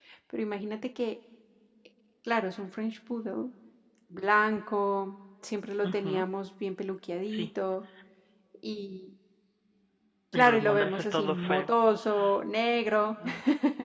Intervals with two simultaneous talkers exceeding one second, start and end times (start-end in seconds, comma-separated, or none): 10.3-11.7